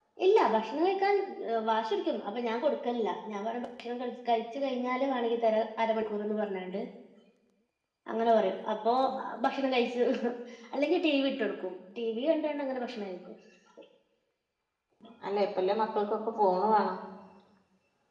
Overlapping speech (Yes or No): No